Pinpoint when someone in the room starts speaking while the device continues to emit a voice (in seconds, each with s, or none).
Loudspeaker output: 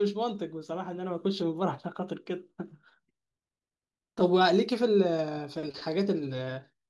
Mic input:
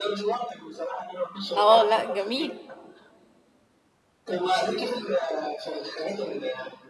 1.5 s